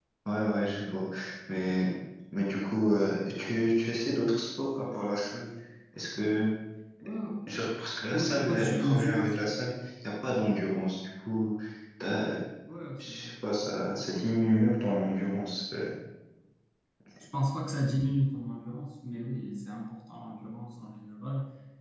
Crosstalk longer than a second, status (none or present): present